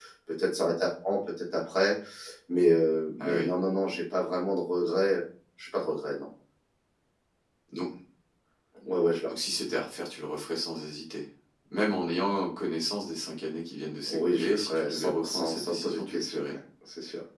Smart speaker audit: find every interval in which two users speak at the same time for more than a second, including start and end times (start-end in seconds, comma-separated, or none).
14.1-16.6